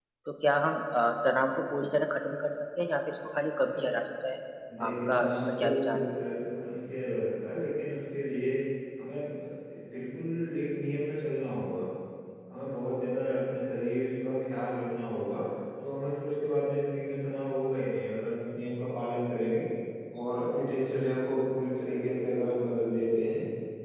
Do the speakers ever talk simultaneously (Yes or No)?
Yes